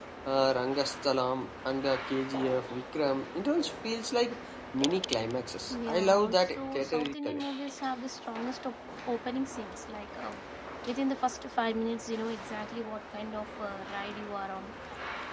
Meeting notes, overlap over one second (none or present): present